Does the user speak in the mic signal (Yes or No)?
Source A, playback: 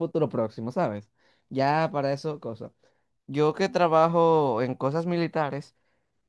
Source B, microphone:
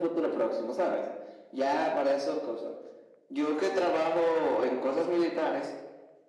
No